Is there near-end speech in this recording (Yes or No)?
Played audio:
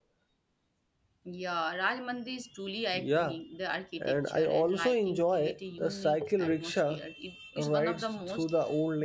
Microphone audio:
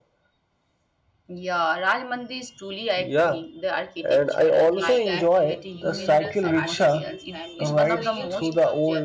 Yes